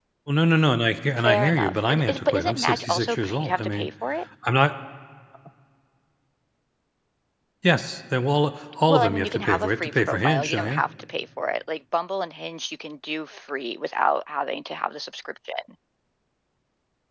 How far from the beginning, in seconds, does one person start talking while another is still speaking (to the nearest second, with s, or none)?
1 s